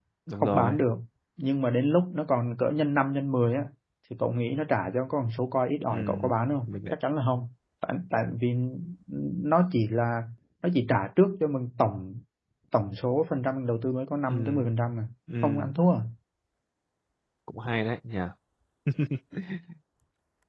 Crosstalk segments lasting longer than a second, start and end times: none

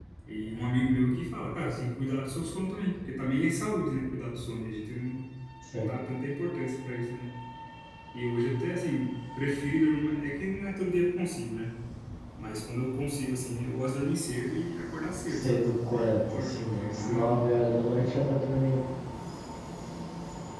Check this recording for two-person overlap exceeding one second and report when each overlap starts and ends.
15.3-17.3

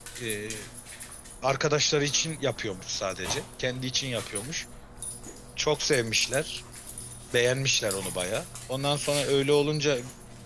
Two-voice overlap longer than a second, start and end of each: none

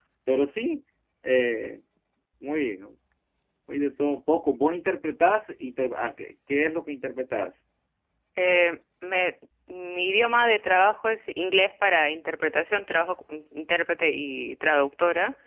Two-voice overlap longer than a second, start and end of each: none

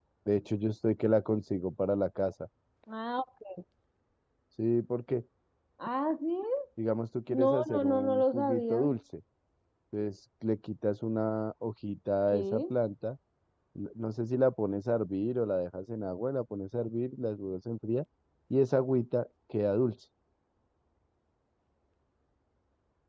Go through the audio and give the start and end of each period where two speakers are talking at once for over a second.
7.3-8.8

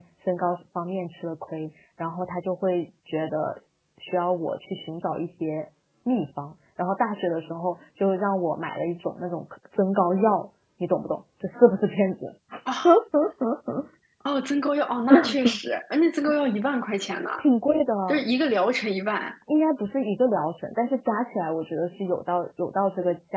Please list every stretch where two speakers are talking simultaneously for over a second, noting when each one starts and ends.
none

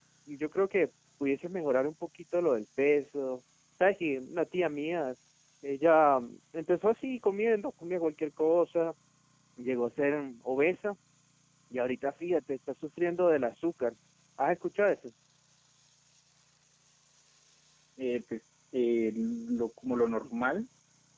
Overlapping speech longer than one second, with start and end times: none

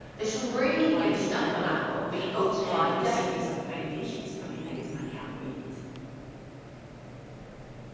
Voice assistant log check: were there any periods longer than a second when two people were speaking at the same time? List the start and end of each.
0.9-3.2

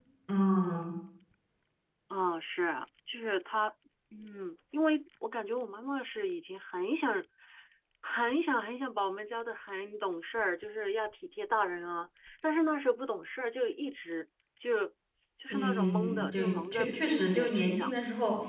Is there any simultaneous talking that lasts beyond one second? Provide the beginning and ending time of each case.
15.5-17.9

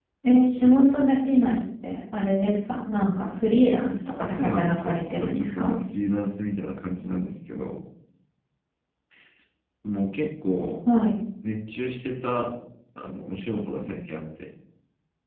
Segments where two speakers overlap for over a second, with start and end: 4.2-5.7

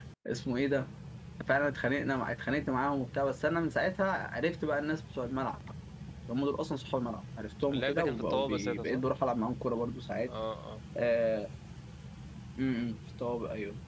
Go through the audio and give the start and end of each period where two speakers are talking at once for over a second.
7.7-9.0

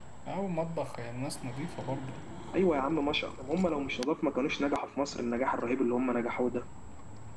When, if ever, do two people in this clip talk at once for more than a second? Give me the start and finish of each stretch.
none

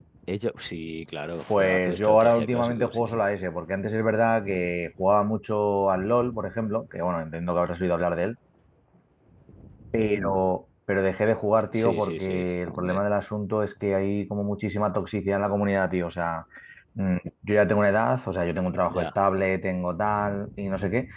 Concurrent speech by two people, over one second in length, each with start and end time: 1.6-3.2, 11.7-13.0

